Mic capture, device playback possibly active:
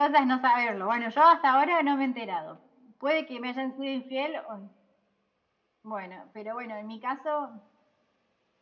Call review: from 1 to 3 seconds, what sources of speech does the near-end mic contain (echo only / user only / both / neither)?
echo only